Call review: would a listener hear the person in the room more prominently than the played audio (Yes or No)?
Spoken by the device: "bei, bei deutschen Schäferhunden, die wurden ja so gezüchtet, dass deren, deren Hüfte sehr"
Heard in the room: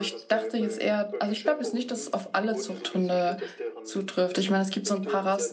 Yes